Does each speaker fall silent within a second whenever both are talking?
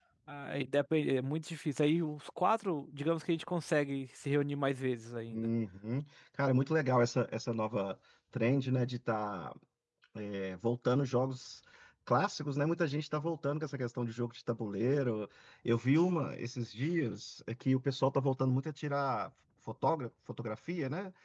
Yes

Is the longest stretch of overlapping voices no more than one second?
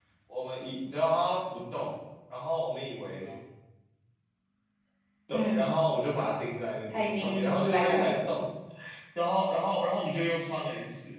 No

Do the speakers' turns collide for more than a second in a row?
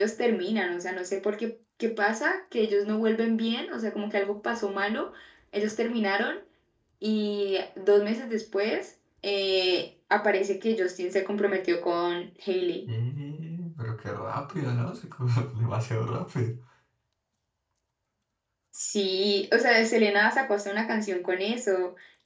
No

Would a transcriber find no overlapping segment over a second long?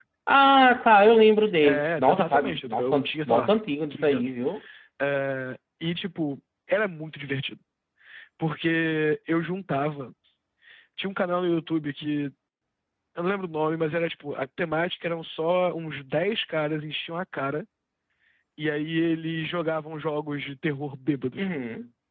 No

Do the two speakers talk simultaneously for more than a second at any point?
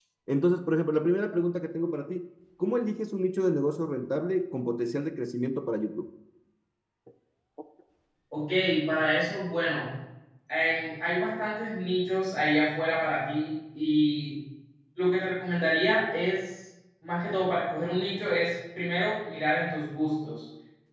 No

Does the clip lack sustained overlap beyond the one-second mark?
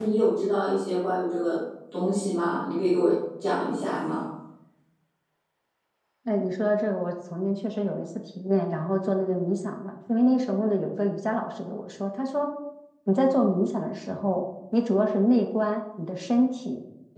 Yes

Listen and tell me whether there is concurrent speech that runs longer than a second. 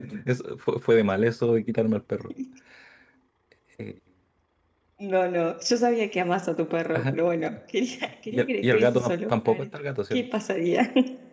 Yes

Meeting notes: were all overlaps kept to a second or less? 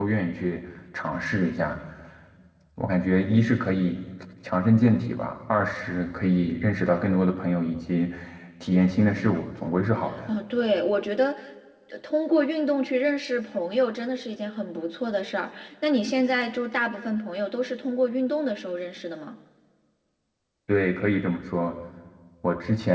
Yes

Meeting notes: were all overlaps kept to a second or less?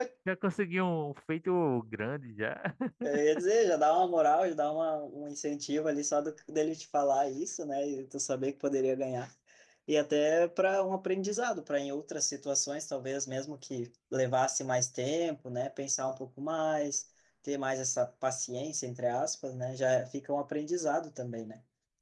Yes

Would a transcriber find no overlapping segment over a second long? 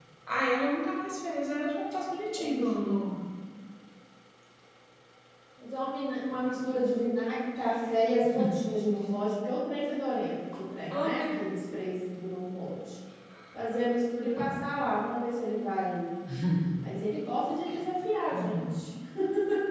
Yes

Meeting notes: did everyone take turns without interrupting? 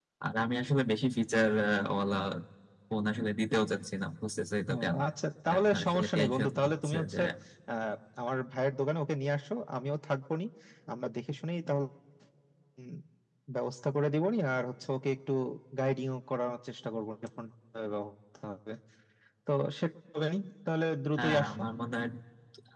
No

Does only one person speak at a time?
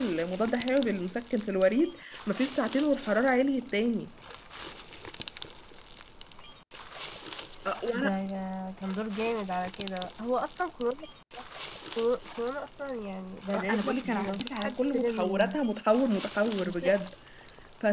No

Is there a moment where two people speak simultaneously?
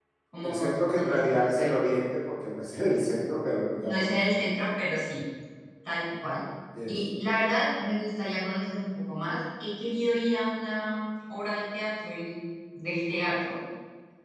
Yes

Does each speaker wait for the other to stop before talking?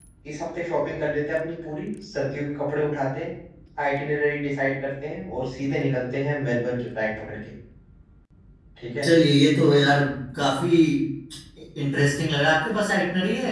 Yes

